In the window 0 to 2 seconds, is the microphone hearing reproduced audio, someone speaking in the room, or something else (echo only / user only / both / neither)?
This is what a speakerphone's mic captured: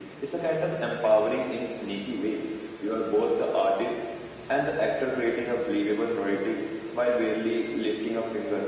echo only